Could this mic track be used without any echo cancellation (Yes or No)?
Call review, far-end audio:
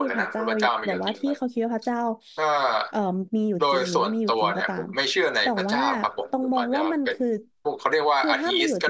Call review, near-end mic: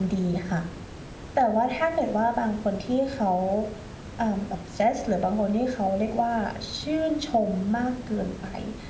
Yes